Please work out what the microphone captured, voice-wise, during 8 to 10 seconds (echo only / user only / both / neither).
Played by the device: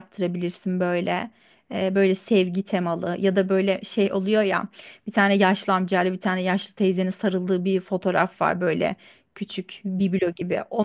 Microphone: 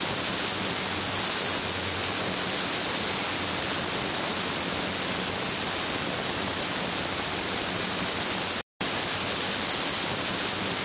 neither